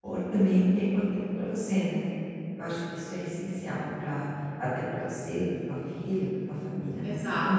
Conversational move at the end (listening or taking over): taking over